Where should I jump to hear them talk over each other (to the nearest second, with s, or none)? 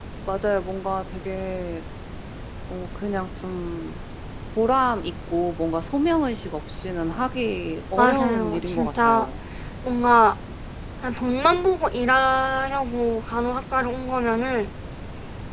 8 s